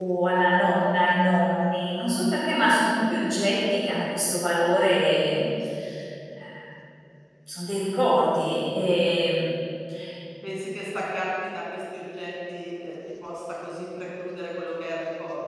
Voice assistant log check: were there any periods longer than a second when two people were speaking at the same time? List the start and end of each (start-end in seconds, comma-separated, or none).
none